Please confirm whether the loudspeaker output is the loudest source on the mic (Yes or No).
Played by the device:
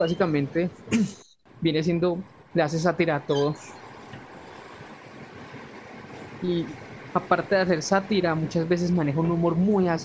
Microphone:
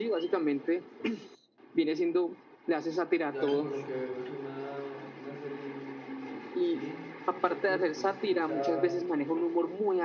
Yes